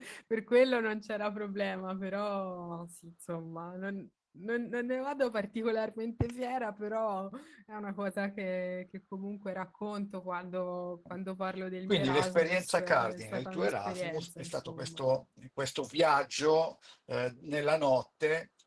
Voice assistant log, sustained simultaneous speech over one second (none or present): present